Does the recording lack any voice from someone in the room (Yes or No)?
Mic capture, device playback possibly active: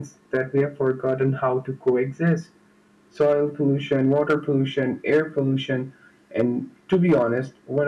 Yes